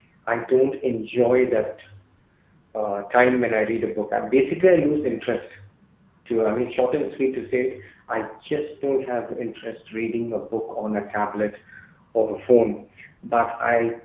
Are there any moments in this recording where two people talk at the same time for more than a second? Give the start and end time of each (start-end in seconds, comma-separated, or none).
none